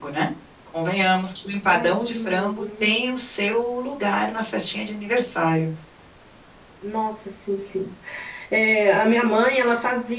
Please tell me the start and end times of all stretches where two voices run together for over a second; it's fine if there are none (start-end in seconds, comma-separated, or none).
1.7-2.9